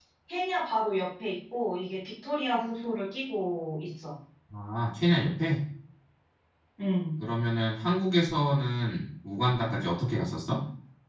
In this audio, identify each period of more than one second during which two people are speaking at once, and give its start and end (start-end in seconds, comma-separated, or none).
none